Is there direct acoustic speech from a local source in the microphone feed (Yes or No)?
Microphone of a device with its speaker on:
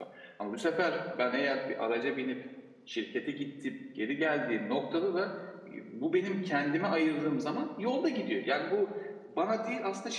Yes